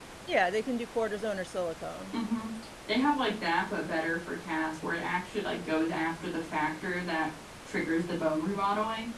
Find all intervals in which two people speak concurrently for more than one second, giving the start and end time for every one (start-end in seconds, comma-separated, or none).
none